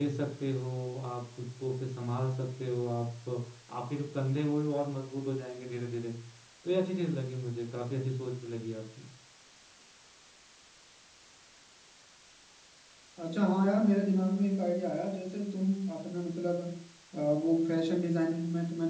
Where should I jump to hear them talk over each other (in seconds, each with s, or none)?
none